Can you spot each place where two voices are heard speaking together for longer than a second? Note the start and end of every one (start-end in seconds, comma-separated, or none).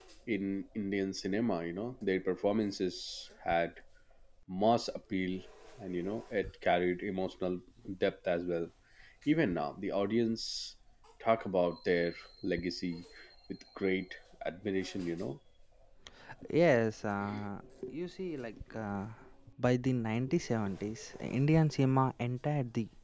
none